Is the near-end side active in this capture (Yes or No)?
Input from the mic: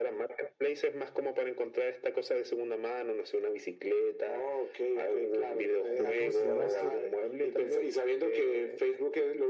Yes